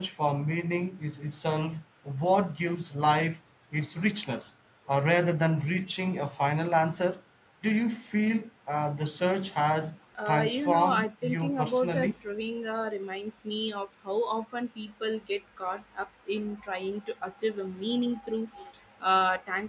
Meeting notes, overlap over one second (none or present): present